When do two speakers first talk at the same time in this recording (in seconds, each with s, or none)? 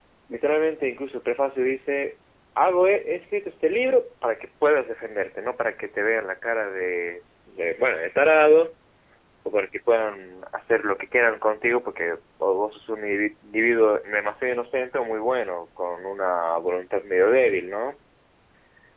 none